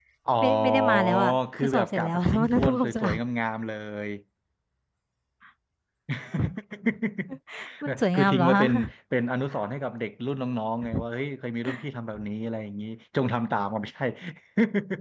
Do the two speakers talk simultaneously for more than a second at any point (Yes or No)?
Yes